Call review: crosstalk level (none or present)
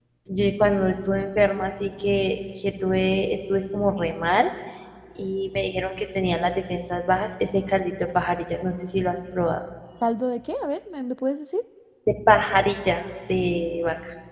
none